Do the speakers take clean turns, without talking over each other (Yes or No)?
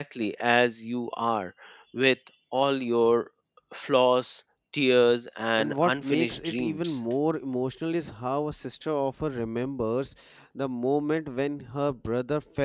No